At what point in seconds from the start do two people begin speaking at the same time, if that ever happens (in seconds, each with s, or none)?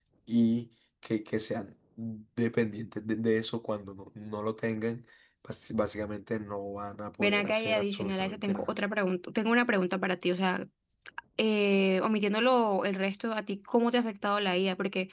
7.2 s